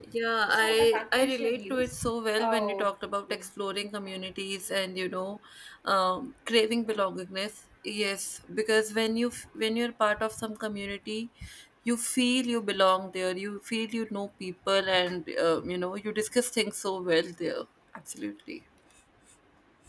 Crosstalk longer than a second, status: present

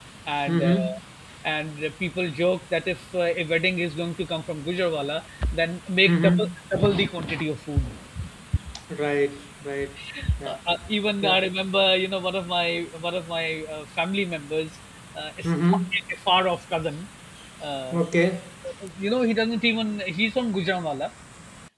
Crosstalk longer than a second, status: none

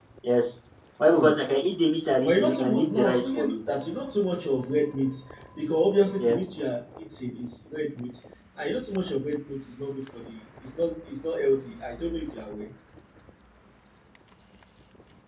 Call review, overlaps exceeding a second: present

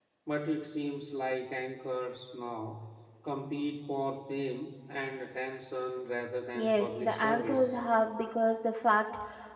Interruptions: present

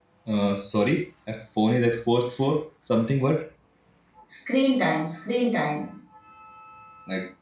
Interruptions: none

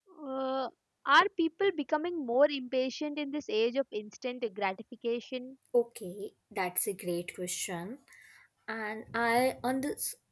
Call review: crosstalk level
none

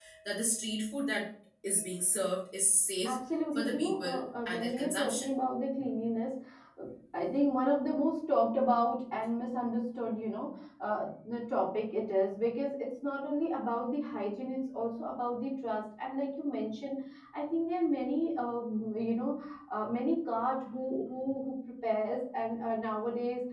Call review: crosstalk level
present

